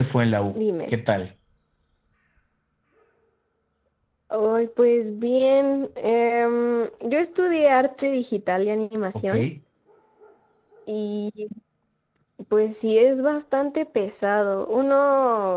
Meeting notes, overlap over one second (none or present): none